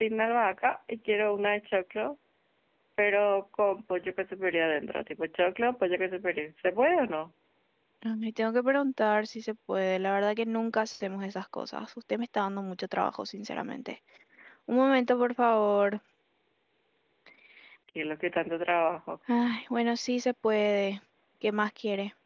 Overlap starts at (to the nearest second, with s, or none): none